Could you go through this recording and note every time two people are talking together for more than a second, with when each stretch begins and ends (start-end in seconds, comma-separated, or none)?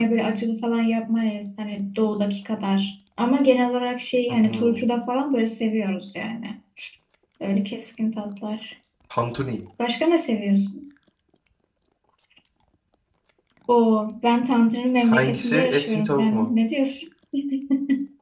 15.1-16.4